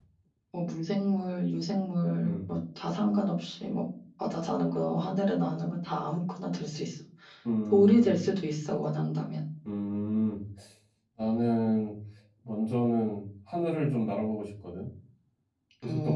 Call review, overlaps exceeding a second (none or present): none